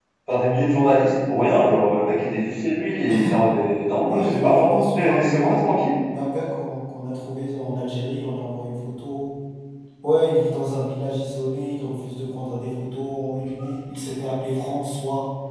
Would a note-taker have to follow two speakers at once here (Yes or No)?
Yes